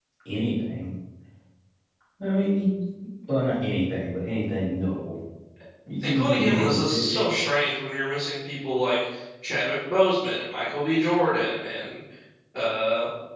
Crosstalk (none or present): present